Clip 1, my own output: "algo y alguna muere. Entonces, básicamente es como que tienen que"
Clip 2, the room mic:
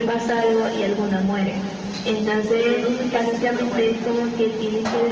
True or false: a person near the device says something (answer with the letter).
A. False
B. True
B